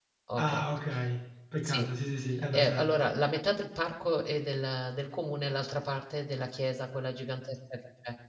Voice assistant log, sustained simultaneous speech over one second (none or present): none